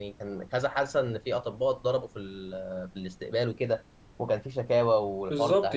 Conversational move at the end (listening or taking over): taking over